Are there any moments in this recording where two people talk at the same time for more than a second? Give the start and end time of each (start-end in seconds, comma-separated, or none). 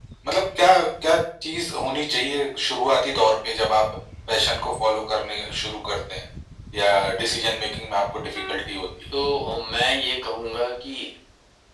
none